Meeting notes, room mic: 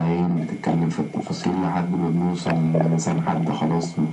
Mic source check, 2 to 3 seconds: echo only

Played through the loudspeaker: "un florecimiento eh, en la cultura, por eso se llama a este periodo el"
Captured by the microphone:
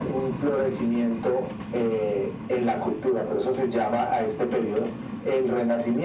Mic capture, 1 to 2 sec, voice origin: echo only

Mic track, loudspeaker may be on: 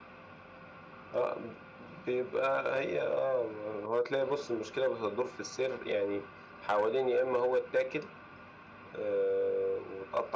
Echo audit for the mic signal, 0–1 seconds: neither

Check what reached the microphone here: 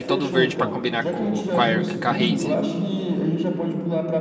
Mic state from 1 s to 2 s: both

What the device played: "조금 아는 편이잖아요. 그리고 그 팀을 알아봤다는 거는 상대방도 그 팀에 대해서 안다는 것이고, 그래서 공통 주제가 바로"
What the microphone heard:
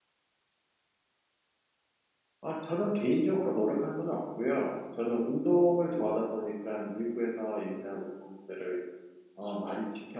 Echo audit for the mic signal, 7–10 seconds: user only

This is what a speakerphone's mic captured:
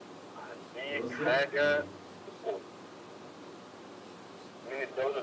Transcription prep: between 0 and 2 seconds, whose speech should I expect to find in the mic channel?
both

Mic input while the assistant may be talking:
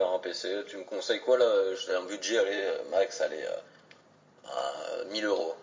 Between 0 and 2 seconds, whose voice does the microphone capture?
echo only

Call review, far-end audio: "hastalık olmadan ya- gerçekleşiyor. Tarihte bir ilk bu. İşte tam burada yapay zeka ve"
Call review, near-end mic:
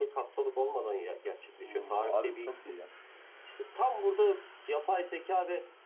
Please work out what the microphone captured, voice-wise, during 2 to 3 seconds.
both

